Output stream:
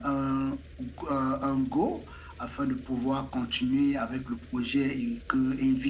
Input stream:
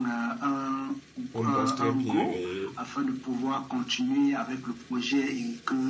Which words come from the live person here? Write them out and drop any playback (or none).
on bosse très bien et